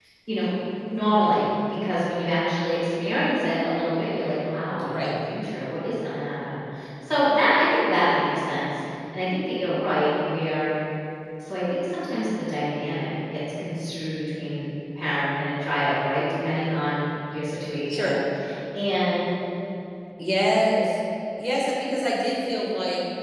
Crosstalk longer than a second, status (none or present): none